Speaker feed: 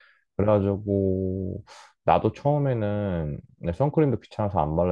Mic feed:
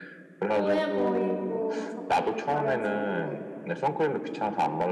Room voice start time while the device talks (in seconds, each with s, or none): 0.5 s